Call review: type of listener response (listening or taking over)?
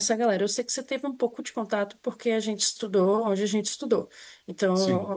listening